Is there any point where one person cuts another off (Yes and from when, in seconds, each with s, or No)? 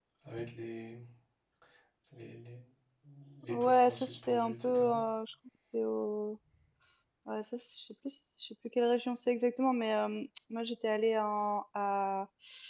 Yes, from 3.5 s